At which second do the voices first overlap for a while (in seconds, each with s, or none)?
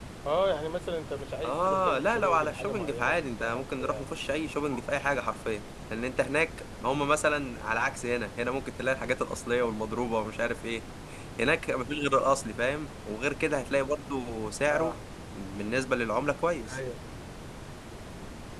1.4 s